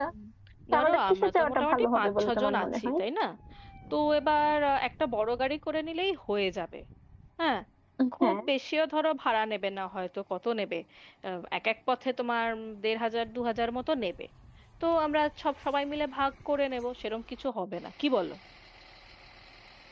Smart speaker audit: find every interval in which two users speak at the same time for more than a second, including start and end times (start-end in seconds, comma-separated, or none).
0.7-2.9